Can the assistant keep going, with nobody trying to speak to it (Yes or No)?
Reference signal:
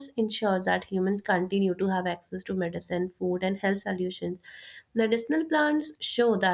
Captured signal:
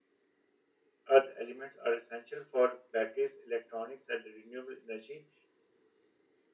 No